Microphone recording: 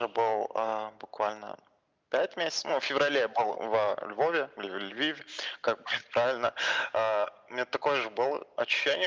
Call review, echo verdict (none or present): present